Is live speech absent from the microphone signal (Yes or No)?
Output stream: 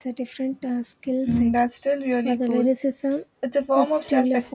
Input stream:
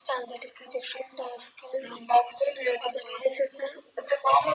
Yes